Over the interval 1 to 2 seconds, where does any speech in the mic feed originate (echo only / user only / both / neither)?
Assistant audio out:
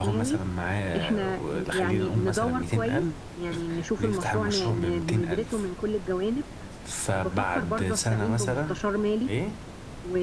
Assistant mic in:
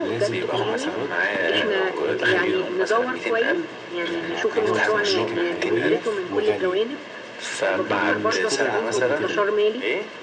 both